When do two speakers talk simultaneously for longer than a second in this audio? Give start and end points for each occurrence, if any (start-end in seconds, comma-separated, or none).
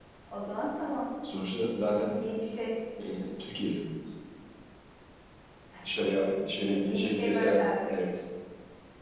6.6-7.9